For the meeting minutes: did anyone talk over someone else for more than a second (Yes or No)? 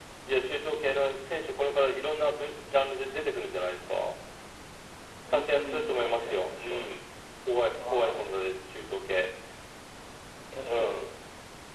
Yes